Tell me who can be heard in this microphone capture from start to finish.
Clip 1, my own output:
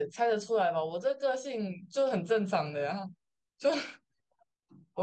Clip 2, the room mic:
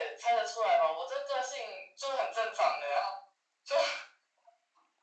echo only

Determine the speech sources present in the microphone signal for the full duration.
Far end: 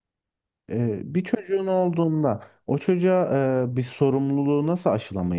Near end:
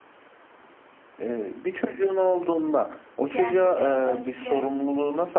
both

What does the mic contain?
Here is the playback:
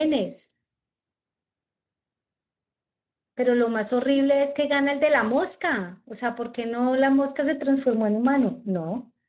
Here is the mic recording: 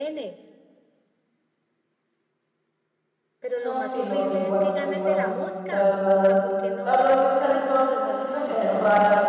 both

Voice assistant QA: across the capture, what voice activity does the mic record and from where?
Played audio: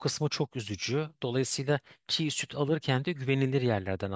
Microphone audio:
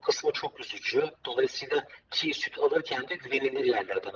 echo only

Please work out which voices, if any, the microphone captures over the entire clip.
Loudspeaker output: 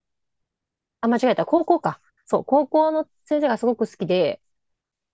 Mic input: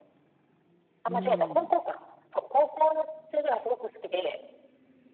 both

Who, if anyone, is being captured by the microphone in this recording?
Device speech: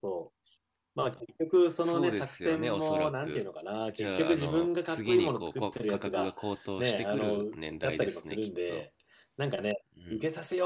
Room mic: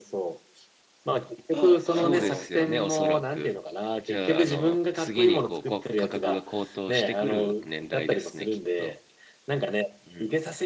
both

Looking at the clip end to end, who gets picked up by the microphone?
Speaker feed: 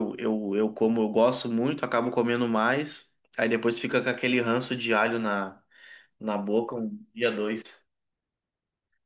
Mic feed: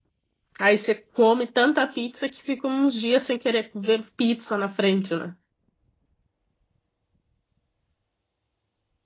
user only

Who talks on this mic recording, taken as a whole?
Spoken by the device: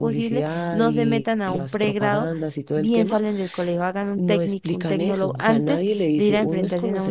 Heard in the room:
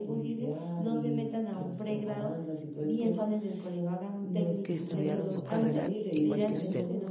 both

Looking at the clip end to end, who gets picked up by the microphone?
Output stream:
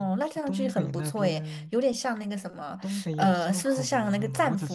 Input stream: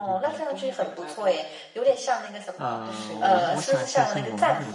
both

